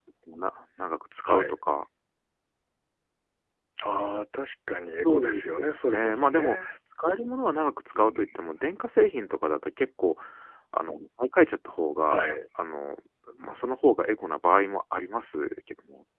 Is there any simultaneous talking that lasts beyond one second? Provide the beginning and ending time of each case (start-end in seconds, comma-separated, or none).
5.0-6.6